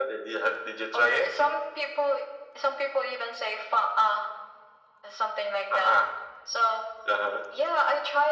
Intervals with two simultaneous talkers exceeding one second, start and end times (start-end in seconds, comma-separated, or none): none